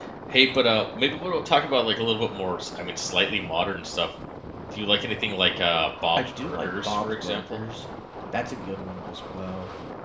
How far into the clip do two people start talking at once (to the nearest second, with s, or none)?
6 s